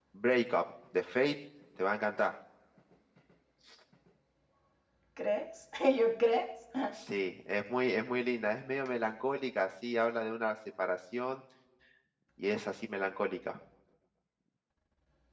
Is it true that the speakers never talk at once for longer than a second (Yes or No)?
Yes